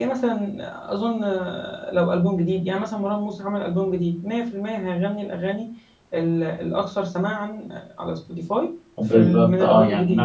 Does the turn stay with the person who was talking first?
No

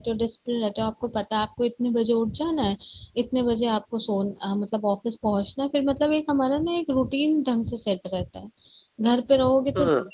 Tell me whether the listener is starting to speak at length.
No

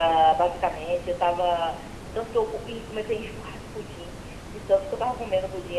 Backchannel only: Yes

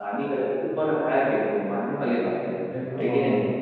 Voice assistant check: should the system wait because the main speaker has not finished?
No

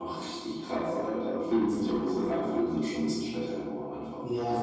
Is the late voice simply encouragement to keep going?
No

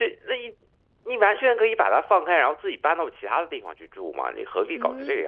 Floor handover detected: Yes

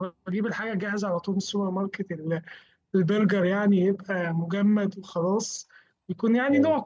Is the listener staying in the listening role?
Yes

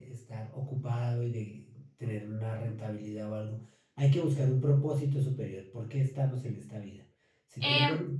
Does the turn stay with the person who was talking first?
Yes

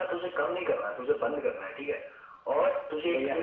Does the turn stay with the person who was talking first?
Yes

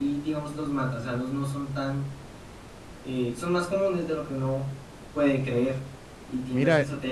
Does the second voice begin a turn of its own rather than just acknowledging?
No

